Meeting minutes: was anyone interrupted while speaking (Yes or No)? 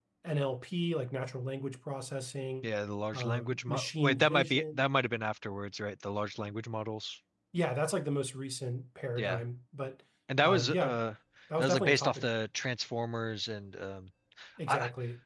Yes